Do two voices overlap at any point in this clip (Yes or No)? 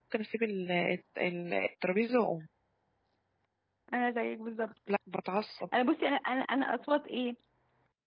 No